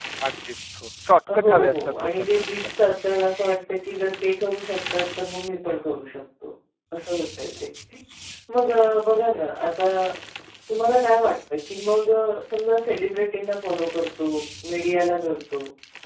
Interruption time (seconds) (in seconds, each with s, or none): 1.3 s